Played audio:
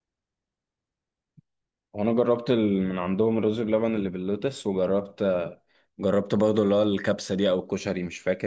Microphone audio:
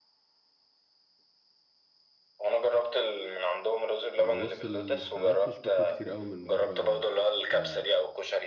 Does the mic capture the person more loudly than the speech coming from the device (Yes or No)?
No